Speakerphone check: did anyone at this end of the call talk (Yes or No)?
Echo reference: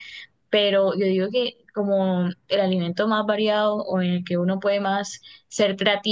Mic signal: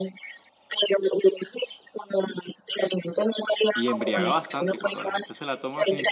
Yes